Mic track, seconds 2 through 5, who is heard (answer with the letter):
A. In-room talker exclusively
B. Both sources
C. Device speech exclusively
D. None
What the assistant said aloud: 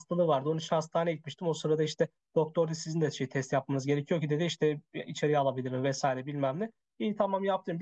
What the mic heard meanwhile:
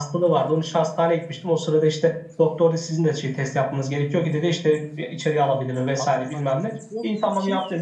C